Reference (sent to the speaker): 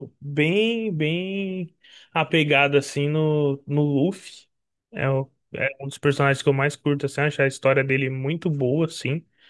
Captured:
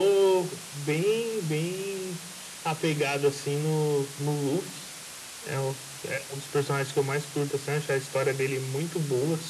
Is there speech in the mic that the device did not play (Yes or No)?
No